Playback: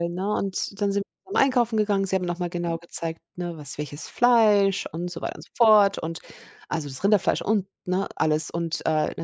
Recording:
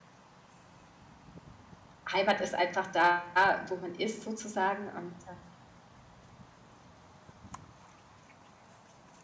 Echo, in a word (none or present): none